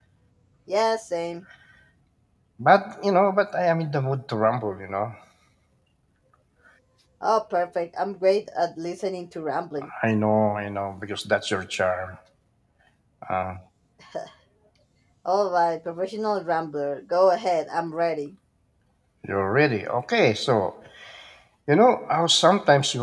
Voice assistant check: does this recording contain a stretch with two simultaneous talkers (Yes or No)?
No